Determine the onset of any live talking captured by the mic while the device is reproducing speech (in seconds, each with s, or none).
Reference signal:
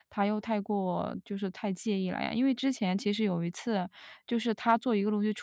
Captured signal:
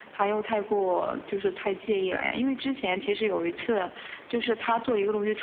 none